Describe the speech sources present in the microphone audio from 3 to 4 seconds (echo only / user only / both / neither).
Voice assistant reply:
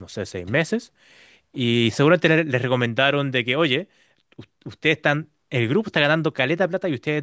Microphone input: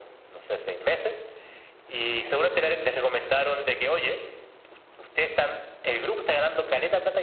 echo only